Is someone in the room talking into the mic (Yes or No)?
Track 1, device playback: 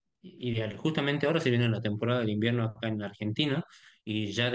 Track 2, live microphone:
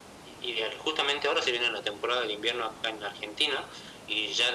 No